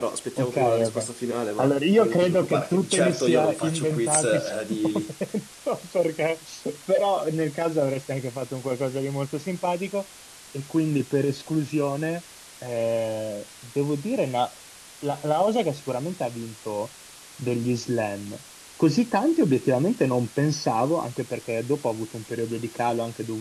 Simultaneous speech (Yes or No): Yes